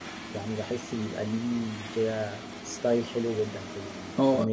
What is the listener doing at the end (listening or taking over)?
taking over